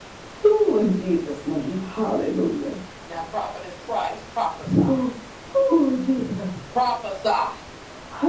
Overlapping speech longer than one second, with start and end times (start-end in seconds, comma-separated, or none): none